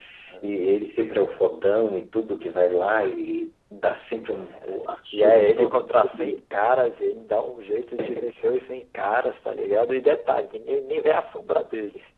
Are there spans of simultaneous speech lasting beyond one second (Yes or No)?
Yes